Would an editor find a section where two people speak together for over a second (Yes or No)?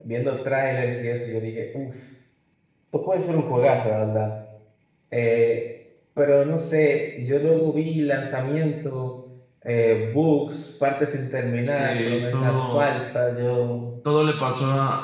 Yes